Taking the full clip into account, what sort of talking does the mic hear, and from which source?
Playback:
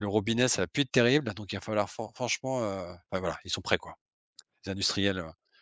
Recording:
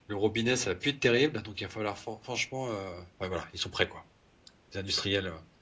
echo only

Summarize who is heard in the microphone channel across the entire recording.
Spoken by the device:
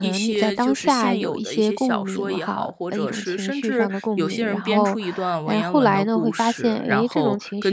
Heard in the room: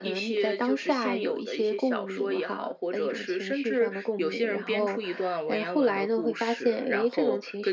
echo only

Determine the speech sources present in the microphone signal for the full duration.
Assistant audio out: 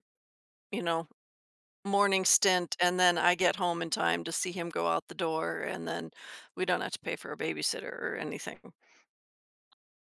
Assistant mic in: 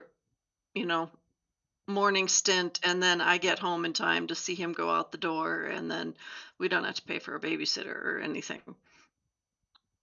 echo only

